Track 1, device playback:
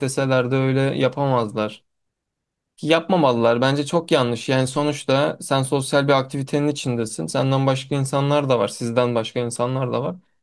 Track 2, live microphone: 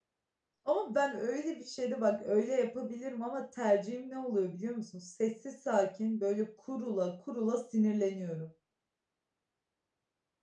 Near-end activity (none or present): present